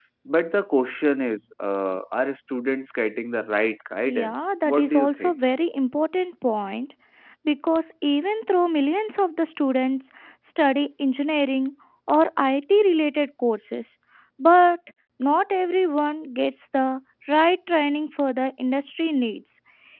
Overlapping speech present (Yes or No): Yes